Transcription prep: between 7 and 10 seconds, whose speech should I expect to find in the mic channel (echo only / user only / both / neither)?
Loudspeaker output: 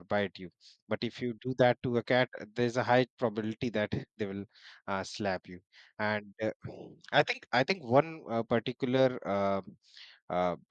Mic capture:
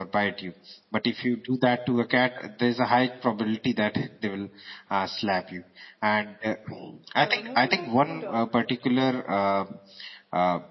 both